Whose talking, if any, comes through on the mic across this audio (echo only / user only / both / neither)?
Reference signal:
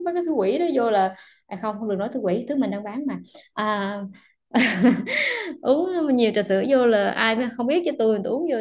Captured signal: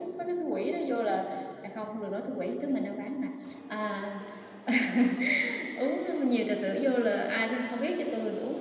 echo only